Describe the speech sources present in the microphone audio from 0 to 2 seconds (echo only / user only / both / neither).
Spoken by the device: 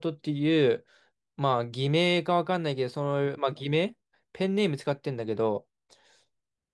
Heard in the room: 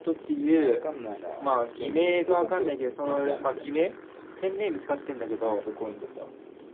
both